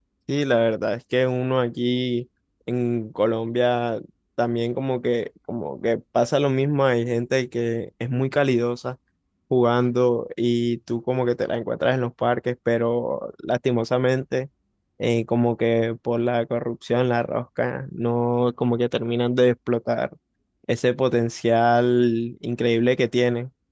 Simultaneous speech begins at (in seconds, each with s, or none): none